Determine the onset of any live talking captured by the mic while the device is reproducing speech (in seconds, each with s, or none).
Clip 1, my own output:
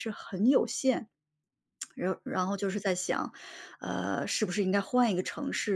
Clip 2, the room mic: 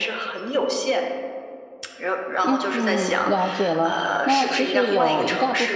2.4 s